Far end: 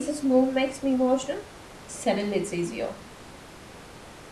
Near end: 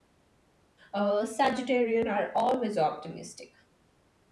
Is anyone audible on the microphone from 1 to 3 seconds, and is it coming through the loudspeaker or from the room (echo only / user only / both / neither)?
user only